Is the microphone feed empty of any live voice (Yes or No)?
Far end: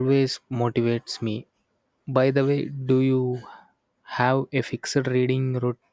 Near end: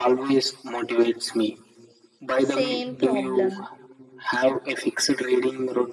No